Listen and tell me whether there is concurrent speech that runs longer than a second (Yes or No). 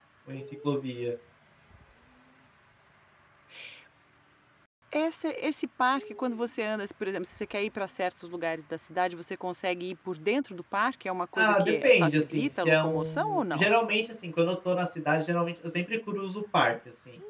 Yes